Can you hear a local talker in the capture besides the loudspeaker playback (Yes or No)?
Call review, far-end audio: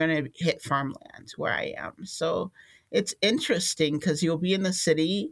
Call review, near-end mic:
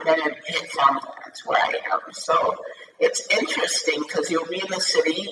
No